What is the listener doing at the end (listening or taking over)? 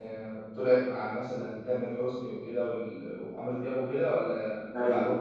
taking over